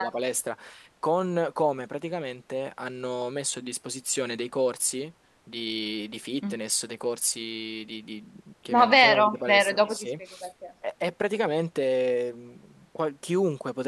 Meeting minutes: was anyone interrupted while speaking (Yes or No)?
Yes